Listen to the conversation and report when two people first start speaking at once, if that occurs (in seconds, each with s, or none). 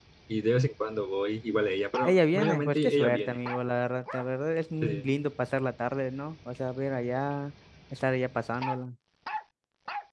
2.0 s